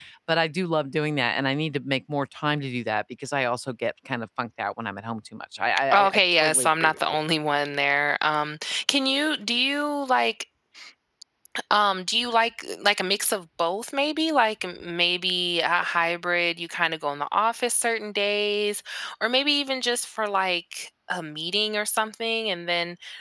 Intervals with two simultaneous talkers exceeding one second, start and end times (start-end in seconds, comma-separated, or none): 5.9-7.2